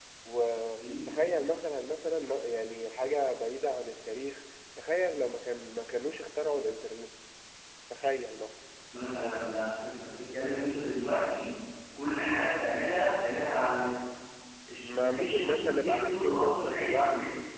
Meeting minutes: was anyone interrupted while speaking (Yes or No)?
Yes